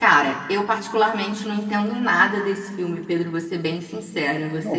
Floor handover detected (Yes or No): No